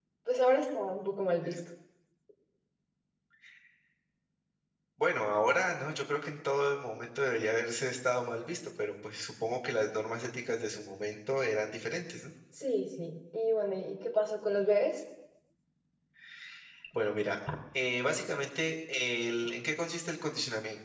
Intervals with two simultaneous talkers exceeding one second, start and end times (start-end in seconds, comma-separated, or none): none